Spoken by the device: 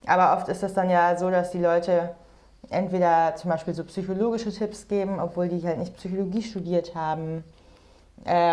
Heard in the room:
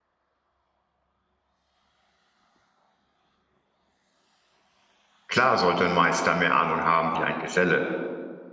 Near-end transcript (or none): Klar sollte ein Meister mehr Ahnung haben wie ein Geselle,